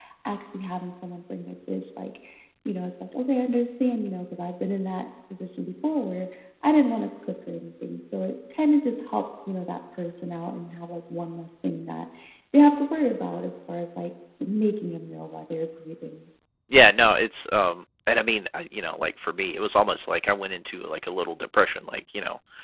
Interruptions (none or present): none